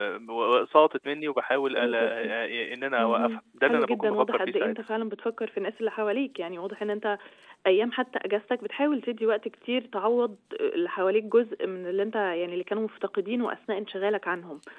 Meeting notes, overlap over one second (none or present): present